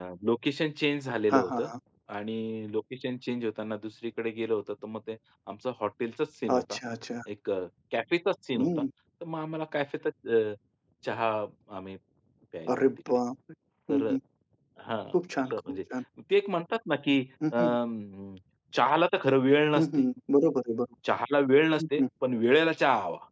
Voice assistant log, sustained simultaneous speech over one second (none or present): none